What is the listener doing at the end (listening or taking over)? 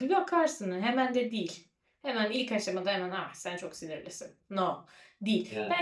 listening